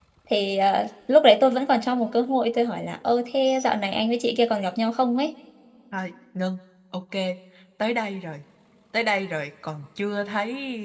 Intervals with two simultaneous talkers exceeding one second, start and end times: none

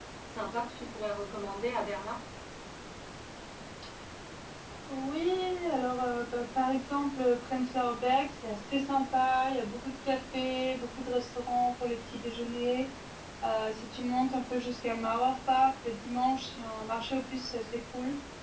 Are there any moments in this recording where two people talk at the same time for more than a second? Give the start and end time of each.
none

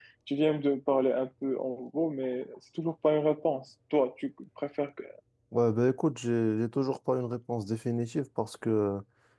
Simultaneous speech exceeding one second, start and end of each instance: none

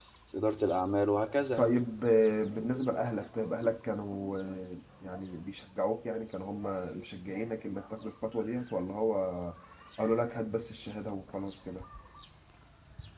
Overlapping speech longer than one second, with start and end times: none

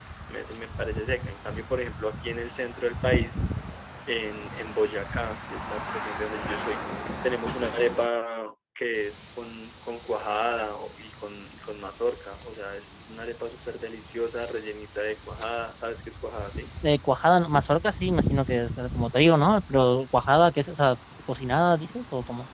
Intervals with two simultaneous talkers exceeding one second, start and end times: none

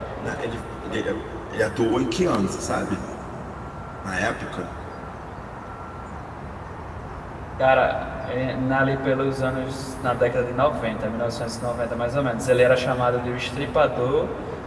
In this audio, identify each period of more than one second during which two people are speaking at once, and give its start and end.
none

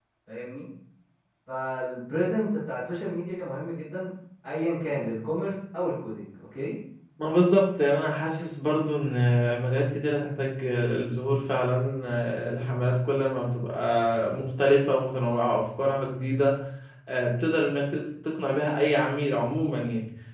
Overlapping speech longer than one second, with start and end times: none

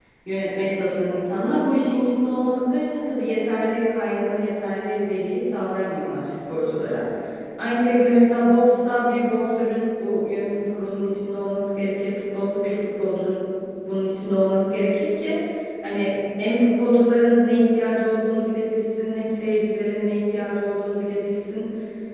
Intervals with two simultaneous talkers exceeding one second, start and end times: none

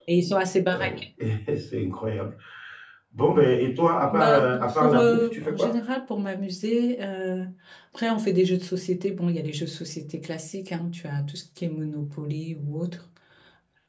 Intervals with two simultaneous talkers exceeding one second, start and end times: 4.1-5.8

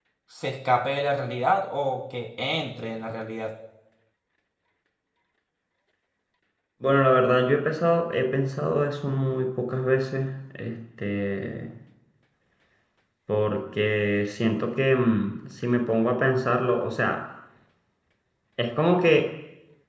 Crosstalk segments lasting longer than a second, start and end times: none

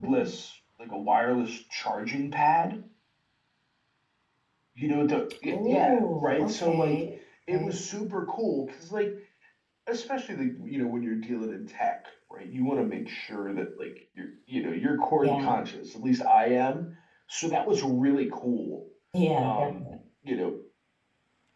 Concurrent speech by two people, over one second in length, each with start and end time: 5.5-7.0

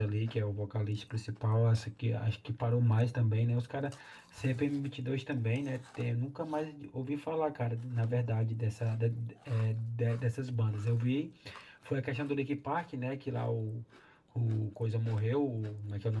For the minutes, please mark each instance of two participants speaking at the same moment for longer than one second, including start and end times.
none

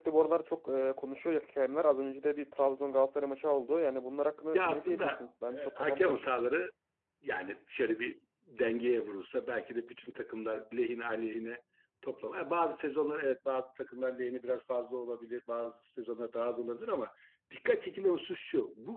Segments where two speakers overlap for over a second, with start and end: 4.5-6.2

